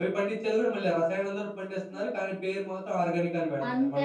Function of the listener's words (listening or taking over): taking over